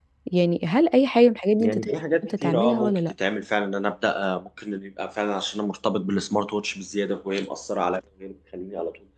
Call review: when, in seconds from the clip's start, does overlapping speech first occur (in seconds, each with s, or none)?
1.6 s